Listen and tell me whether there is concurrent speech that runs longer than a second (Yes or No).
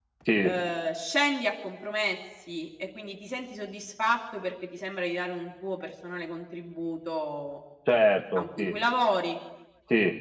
No